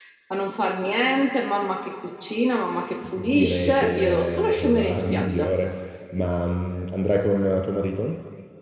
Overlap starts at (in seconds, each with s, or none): 3.2 s